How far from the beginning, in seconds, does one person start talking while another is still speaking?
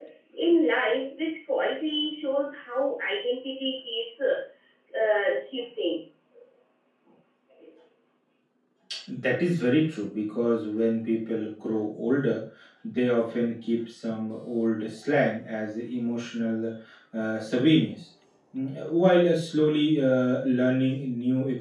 none

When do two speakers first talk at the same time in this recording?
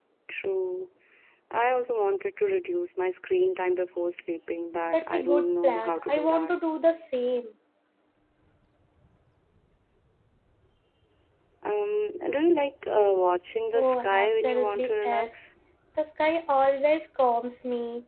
4.9 s

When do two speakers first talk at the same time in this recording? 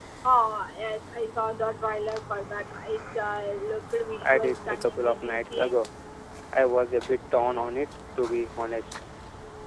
4.2 s

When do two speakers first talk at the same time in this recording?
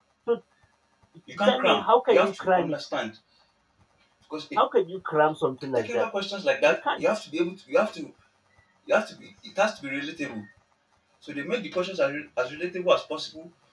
1.5 s

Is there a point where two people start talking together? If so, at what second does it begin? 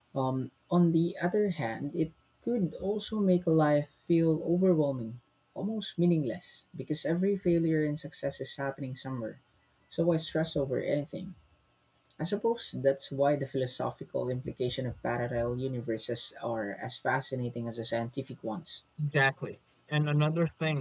none

